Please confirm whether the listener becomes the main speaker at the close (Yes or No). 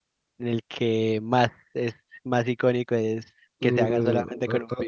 Yes